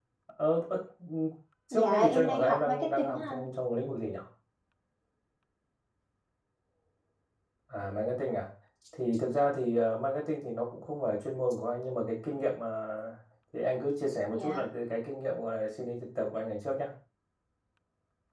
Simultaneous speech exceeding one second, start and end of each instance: 1.7-3.5

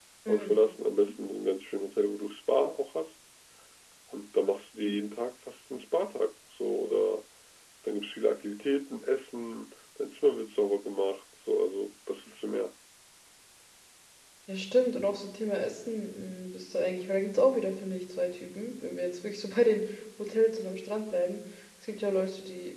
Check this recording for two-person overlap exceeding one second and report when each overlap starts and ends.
none

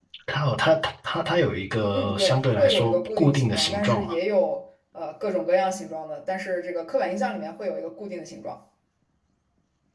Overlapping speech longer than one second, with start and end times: 1.9-4.1

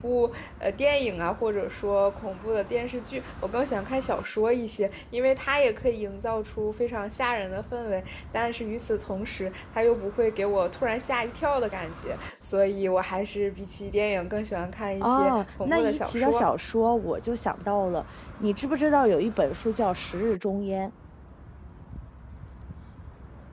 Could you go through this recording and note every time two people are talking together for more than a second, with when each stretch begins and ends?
15.0-16.4

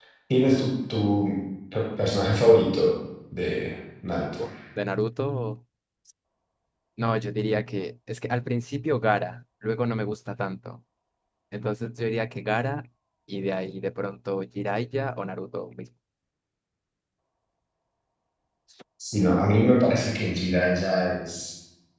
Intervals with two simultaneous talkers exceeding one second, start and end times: none

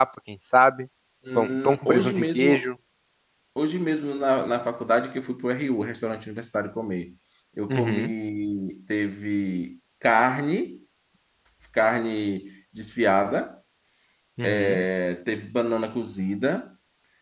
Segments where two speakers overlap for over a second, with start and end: 1.4-2.6

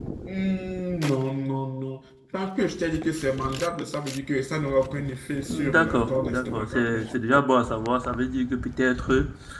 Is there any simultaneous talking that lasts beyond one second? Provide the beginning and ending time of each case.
5.5-7.1

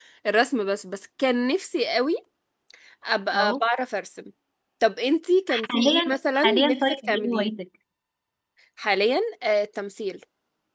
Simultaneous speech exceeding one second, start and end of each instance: 5.5-7.5

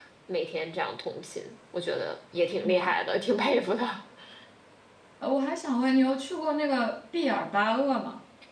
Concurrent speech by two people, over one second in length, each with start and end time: none

